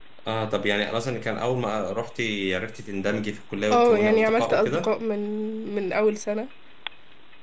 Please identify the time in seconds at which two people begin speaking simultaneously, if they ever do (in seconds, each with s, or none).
3.7 s